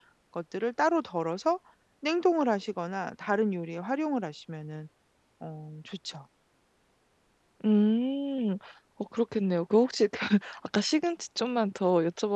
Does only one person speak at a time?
Yes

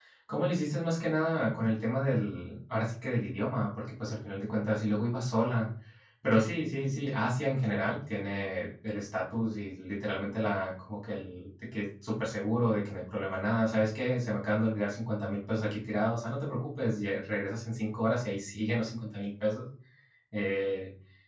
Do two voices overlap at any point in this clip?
No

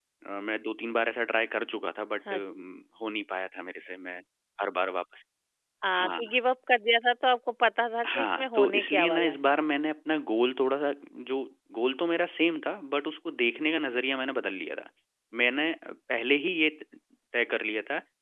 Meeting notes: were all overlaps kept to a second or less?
No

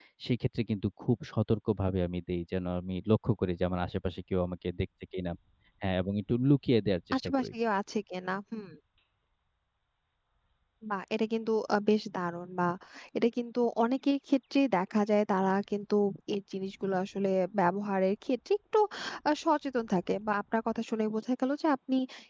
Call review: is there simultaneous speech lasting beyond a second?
No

